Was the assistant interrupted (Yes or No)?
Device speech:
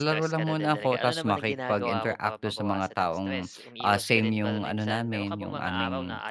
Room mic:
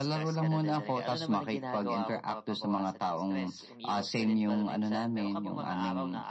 No